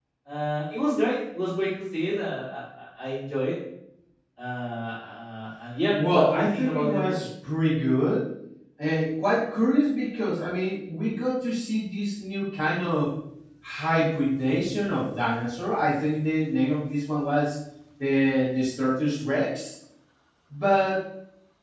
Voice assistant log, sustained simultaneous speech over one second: present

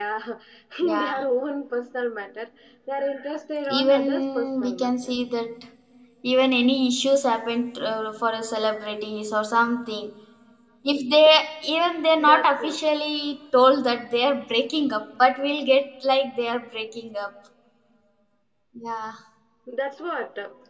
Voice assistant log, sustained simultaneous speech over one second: present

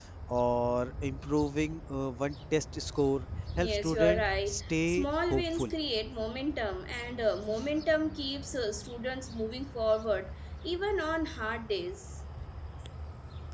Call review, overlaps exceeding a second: present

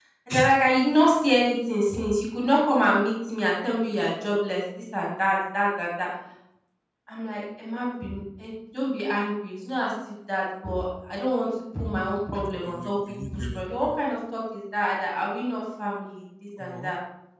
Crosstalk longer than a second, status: present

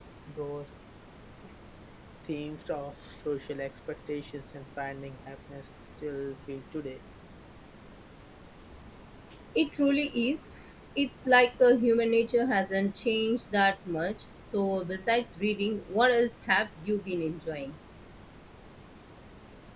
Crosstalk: none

